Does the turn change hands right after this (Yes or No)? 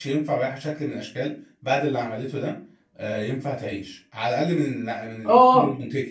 Yes